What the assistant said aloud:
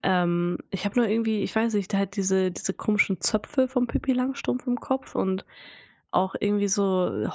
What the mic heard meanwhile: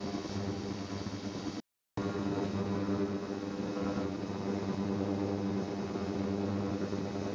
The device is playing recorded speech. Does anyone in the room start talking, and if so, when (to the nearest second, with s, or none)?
none